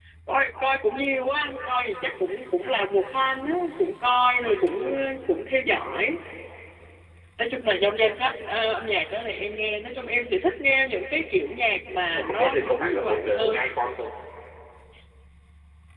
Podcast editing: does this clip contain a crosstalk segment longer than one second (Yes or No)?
Yes